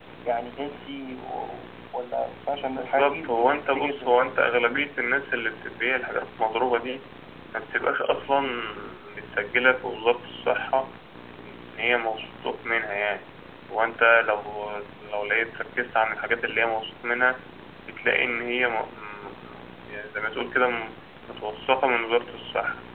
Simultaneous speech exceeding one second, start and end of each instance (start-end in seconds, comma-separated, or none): 2.8-4.1